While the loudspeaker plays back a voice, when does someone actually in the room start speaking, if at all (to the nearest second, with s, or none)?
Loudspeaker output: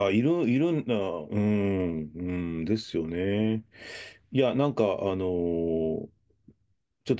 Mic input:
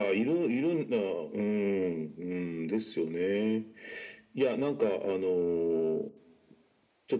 none